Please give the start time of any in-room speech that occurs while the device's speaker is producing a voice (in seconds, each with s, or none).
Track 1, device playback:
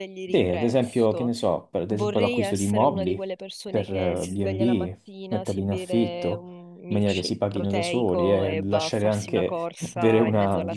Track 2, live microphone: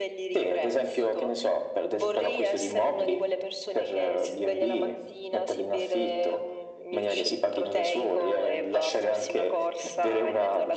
none